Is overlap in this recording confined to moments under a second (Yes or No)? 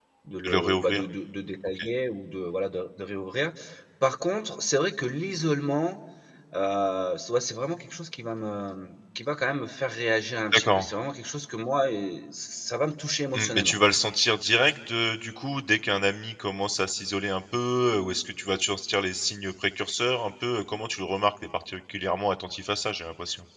Yes